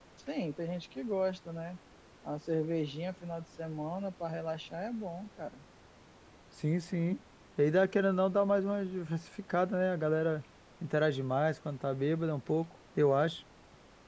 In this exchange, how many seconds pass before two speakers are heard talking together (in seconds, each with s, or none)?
none